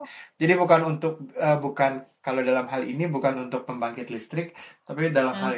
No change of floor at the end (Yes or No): Yes